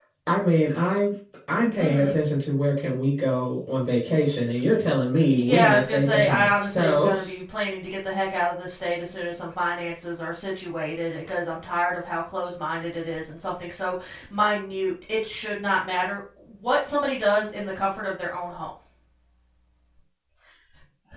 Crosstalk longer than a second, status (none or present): present